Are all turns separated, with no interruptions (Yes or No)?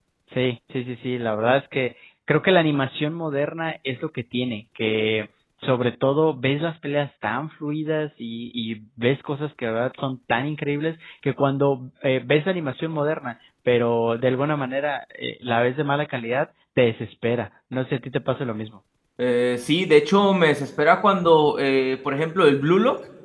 Yes